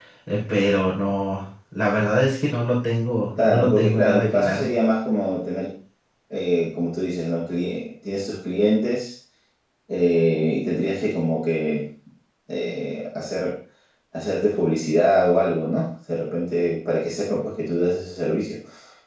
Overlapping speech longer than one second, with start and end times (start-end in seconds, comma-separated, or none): 3.3-4.6